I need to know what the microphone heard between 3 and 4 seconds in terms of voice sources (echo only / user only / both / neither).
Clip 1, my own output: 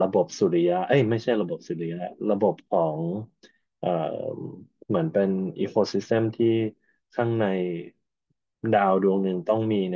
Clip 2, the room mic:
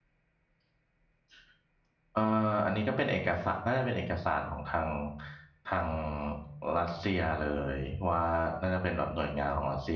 user only